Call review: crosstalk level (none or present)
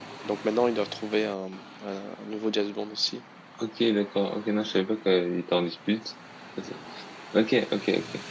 none